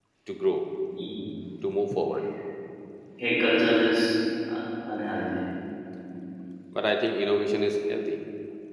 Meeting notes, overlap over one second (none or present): none